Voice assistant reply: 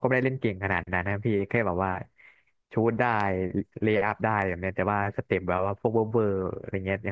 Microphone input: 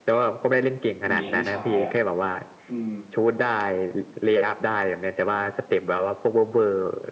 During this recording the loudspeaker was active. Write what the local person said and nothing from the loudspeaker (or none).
มีให้ฉายอ่ะอืม